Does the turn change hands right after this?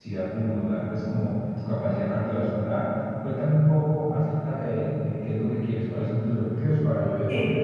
Yes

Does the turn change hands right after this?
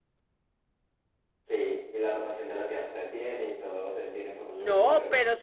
Yes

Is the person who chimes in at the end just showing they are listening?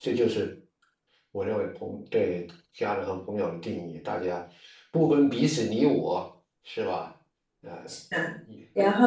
No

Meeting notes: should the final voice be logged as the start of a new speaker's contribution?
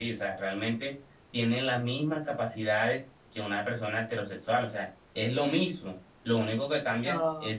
No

